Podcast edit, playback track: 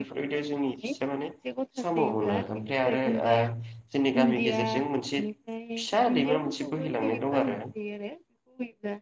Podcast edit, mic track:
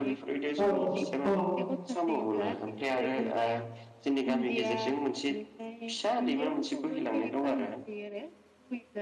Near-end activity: present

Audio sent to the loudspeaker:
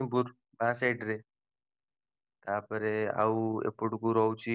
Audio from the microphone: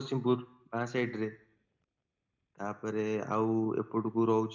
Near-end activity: none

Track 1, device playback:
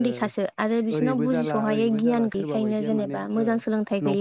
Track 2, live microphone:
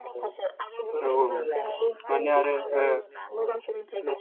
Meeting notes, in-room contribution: present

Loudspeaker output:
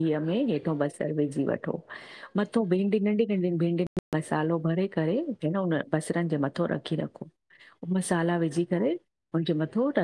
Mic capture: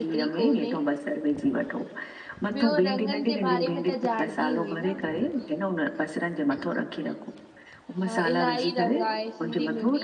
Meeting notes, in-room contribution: present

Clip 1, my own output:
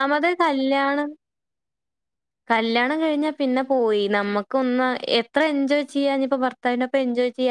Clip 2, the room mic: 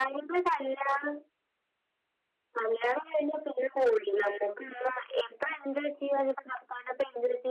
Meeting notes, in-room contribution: none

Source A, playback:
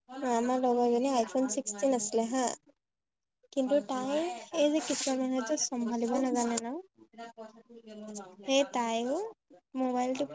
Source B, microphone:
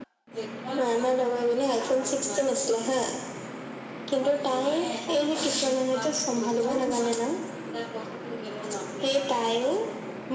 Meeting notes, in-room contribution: none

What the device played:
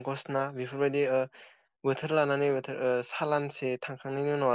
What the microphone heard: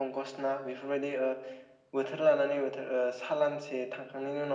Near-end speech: none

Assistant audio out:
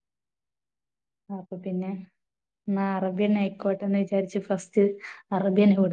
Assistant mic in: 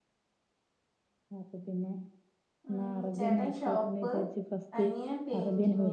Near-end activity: present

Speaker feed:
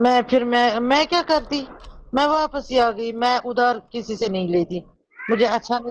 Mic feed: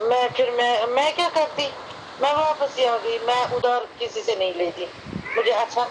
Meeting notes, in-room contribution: none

